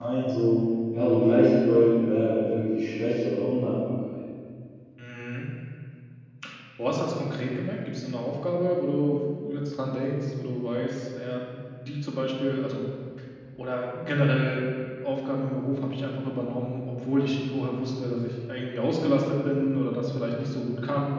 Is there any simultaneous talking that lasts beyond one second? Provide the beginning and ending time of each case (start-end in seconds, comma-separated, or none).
none